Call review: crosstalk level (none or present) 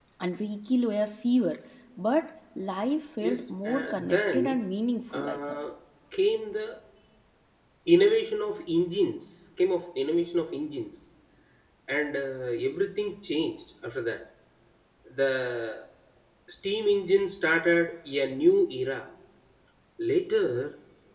present